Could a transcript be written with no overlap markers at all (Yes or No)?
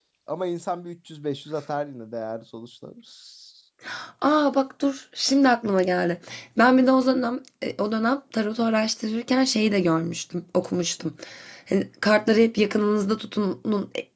Yes